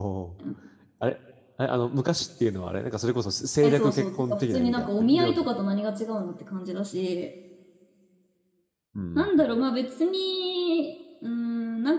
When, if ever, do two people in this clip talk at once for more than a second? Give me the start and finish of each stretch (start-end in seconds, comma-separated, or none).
3.6-5.5